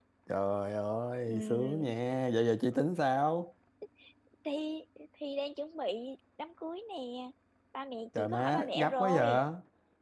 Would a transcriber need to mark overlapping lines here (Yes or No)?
Yes